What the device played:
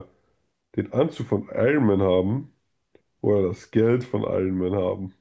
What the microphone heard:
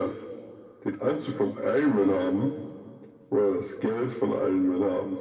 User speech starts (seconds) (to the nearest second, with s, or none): none